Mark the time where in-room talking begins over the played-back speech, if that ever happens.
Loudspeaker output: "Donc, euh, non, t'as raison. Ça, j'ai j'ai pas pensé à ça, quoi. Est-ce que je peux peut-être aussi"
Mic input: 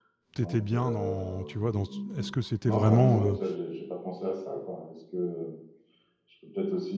0.3 s

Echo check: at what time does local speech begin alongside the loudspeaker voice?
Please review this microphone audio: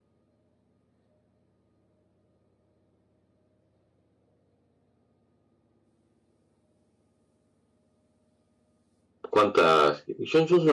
9.3 s

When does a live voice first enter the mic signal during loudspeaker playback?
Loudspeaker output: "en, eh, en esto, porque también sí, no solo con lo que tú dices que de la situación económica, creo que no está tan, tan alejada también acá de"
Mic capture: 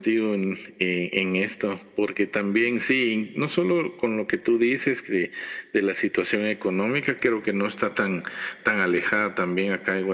none

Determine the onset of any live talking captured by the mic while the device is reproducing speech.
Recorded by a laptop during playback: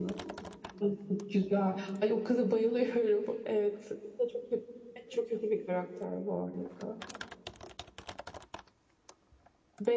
none

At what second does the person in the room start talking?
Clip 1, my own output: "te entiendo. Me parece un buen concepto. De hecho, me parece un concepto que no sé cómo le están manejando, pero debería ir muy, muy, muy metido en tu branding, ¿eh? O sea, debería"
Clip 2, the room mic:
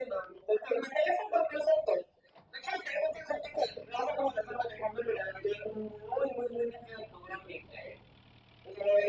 none

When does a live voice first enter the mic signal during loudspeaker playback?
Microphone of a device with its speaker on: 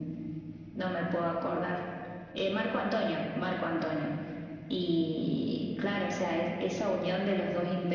none

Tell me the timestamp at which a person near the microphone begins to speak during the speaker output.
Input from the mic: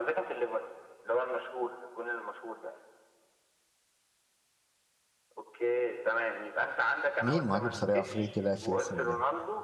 7.2 s

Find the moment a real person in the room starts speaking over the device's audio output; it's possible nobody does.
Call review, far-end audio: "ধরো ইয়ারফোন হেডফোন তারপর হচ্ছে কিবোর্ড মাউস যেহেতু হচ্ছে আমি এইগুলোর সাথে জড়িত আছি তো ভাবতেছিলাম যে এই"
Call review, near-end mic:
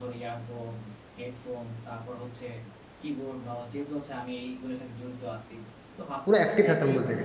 6.2 s

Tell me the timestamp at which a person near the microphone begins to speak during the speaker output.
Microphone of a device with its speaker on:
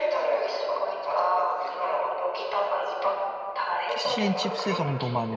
3.9 s

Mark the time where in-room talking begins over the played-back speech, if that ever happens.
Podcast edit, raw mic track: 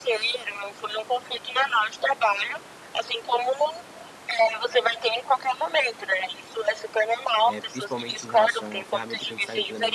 7.4 s

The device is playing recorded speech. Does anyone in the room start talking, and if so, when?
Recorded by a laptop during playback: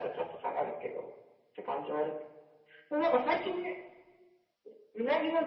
none

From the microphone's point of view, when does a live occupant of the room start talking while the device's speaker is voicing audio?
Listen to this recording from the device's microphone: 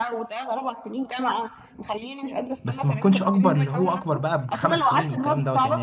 2.6 s

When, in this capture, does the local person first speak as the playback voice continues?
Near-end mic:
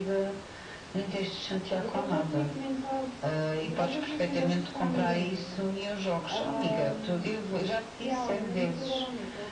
1.8 s

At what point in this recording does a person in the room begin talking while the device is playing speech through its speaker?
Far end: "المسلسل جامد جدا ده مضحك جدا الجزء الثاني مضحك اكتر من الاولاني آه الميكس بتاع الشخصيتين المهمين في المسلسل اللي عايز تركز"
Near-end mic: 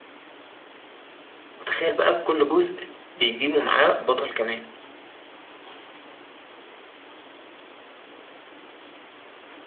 1.6 s

